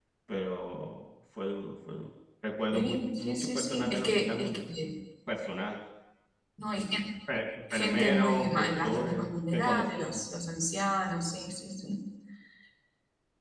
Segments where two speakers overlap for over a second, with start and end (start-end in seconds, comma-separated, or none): 2.7-4.7, 7.7-10.2